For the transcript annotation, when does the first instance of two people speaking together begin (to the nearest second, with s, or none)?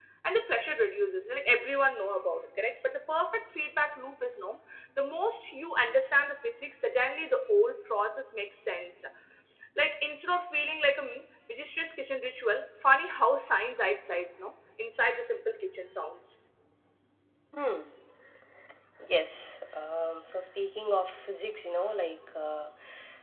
none